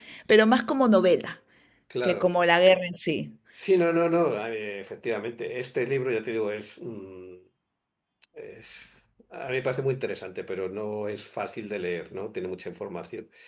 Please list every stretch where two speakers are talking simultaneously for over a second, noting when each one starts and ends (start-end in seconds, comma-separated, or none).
none